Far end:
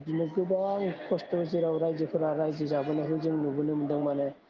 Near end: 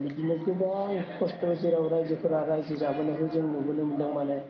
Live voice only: none

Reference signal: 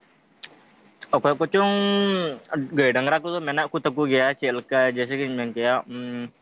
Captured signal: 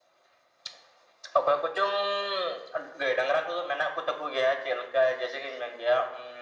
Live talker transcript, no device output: none

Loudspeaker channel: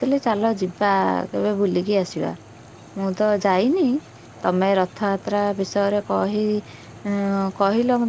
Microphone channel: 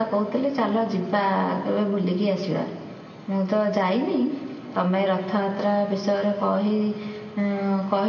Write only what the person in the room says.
none

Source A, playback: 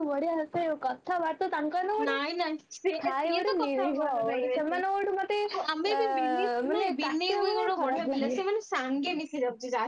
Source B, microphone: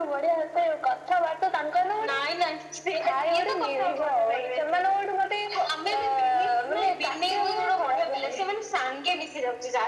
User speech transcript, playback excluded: none

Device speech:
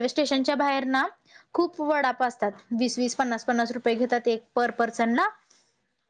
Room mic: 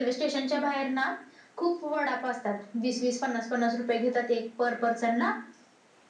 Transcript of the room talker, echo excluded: none

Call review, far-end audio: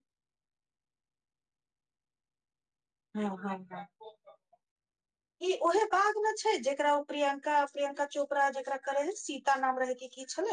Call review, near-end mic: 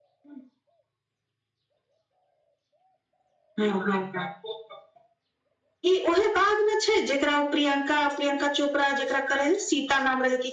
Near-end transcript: none

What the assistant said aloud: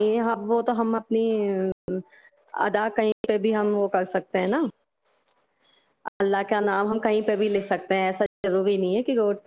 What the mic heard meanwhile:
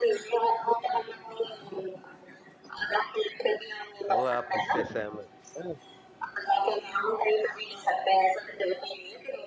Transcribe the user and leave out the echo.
تو آپ اس سے سہمت ہیں

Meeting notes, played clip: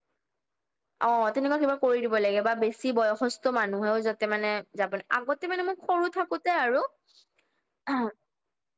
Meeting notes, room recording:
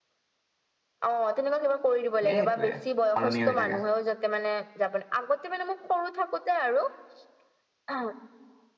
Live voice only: সেই সেইটোয়ে সলনি হৈ থাকে।

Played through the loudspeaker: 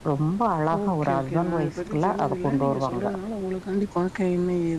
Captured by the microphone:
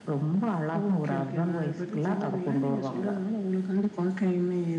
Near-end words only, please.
none

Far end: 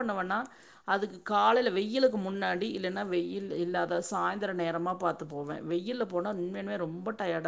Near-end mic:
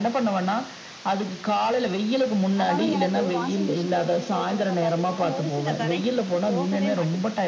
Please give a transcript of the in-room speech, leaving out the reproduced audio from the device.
ஆனாலு எனக்கு வாஷிங் மிஷின்ல துணி தொவைக்கிறப்ப பாத்தீங்கன்னா ஒரு சில கரைகள் வந்து போகவே மாட்டுது

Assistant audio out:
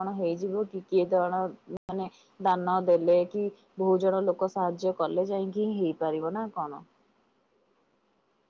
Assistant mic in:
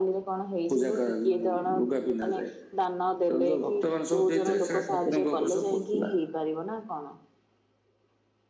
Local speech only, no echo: ପୂଜା କରା ମାନେ ଲୁଗା ପିନ୍ଧା ଯାଏ। ତେଣୁ ଯୋଉ ଭକ୍ତମାନେ ସବୁ ଦେଇଥିଲେ ସେରା ଠାକୁରଙ୍କ ଉପରେ ସବୁ ପଡିଥିଲା।

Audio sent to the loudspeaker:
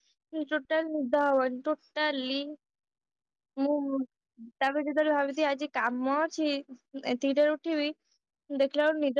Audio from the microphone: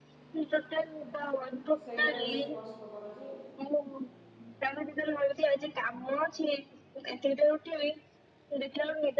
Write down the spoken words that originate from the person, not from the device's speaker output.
ସେଇଟା ବେଶୀ କଷ୍ଟକର ଯେ

